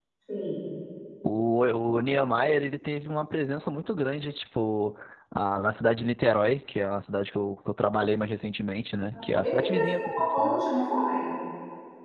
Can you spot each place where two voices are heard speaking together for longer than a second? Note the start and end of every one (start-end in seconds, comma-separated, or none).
9.3-10.7